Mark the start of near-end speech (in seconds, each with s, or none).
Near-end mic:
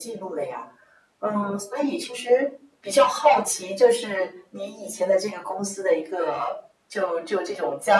none